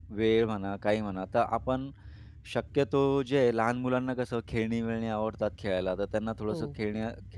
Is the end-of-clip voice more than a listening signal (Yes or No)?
No